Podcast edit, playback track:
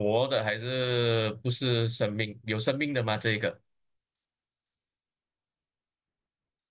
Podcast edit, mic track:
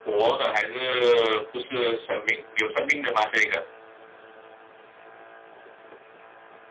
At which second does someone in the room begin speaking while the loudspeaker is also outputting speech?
none

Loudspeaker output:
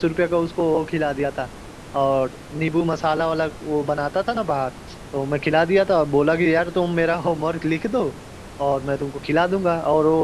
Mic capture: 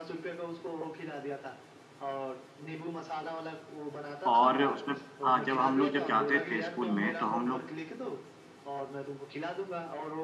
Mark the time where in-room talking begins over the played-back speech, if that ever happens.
4.3 s

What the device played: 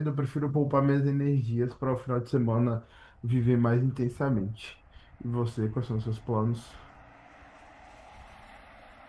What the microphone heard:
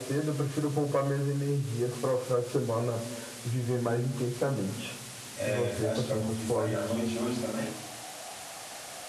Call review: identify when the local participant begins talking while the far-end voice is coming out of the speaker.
5.3 s

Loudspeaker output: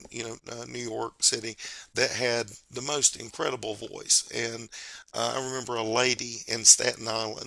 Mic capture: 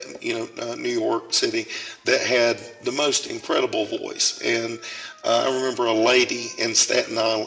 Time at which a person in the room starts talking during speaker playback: none

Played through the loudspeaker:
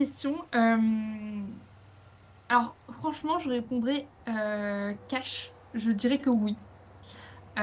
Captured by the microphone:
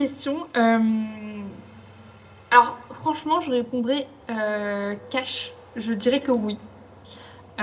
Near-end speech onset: none

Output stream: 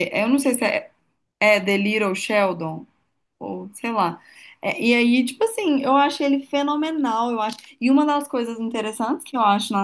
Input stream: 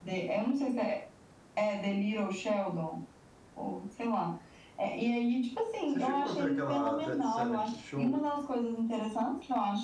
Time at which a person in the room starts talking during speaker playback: 5.8 s

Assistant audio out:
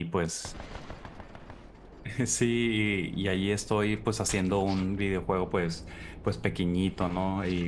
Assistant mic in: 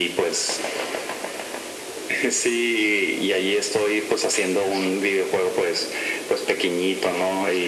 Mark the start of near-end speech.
none

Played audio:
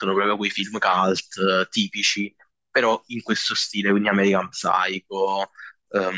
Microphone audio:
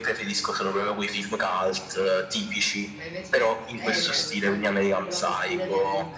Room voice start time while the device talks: 2.9 s

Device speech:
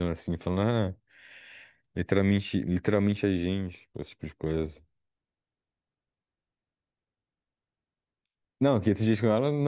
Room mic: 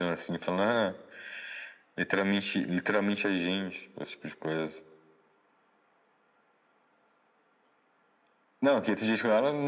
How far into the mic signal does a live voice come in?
none

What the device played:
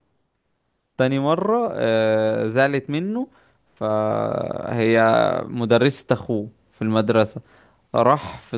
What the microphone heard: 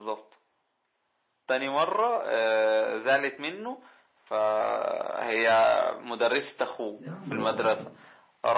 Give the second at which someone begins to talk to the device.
7.0 s

